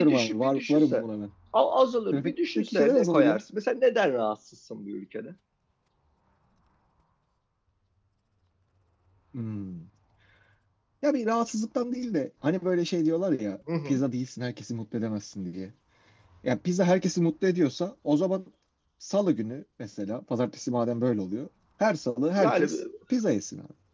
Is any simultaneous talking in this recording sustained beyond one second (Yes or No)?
Yes